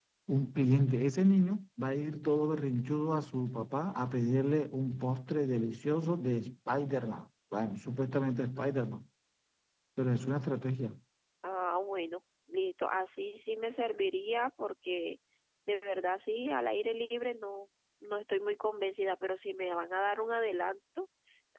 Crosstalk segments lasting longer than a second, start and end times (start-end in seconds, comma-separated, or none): none